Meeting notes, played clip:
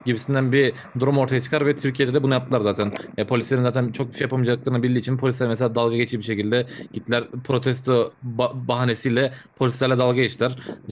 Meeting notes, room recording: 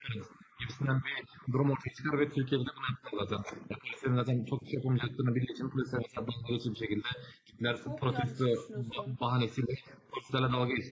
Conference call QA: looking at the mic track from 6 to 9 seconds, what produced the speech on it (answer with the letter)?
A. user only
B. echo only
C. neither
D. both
D